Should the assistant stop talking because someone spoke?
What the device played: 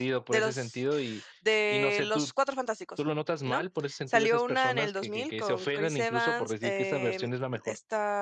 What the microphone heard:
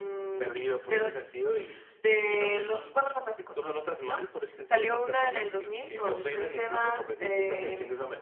No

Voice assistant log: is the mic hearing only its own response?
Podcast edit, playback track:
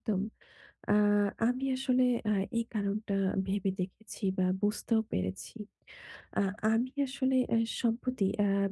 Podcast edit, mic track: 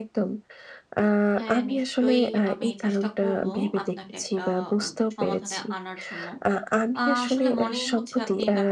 No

